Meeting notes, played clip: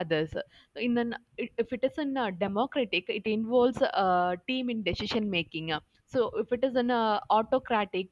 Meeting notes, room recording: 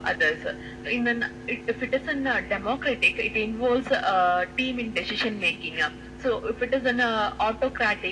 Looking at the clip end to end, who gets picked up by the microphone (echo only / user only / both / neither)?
echo only